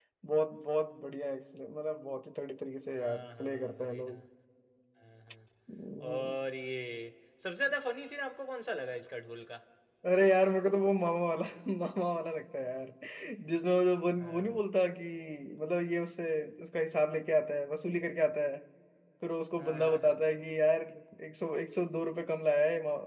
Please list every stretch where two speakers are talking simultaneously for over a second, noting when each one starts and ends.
2.9-4.2

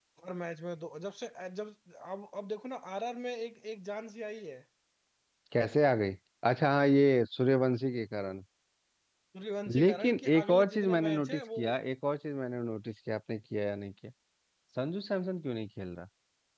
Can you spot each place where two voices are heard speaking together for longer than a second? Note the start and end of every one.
9.8-11.6

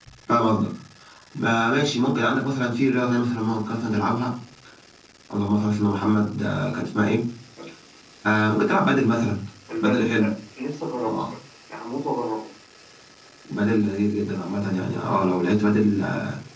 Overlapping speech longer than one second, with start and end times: none

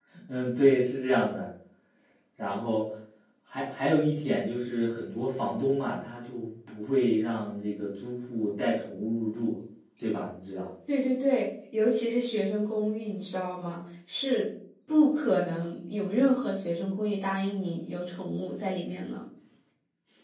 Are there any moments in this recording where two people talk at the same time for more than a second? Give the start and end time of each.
none

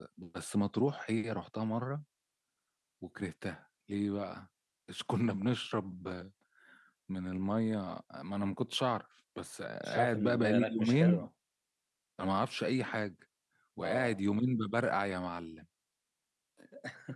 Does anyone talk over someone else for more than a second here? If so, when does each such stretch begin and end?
9.8-11.3

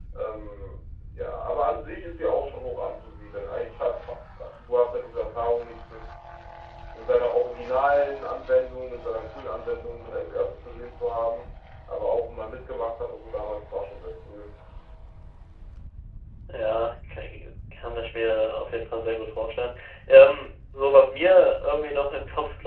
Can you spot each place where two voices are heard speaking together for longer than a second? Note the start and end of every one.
none

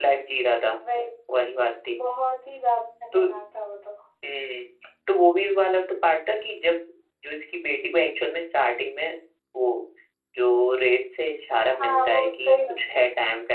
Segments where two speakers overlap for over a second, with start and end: 11.8-13.0

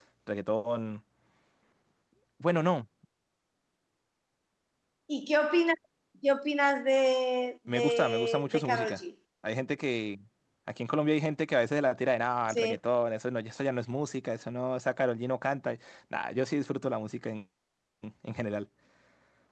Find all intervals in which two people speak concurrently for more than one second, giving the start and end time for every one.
7.7-9.0

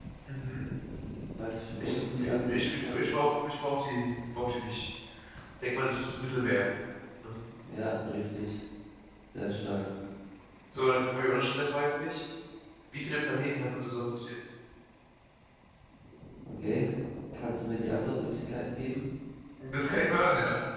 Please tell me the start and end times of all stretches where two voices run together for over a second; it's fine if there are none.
1.8-3.2

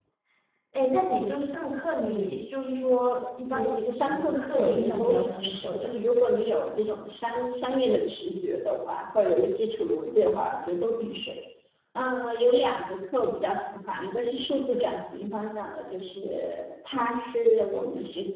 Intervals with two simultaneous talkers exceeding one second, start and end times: 3.5-6.0

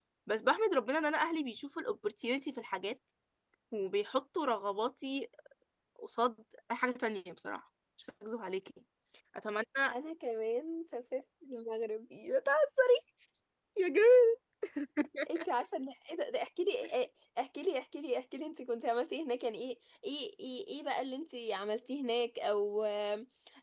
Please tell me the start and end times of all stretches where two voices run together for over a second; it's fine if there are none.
none

